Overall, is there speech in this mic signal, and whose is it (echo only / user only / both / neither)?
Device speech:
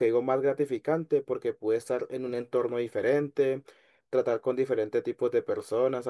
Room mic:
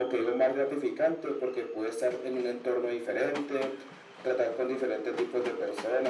echo only